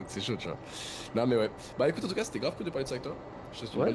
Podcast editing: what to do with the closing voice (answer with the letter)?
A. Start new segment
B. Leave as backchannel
A